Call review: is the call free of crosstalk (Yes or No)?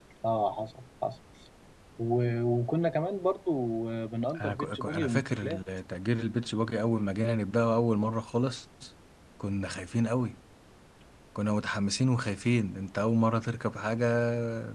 No